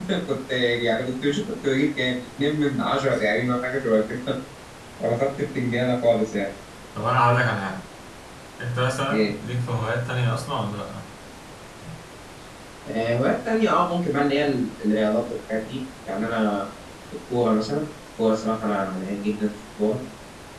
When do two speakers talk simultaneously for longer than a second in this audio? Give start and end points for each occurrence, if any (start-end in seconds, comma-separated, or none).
none